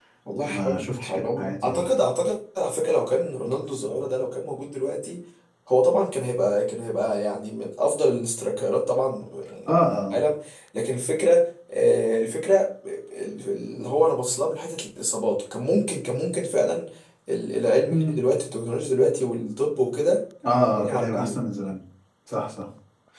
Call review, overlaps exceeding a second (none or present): present